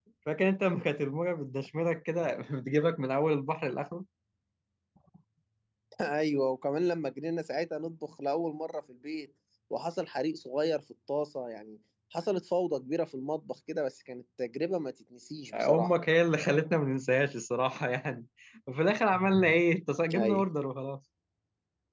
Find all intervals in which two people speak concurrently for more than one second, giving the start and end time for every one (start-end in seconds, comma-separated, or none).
none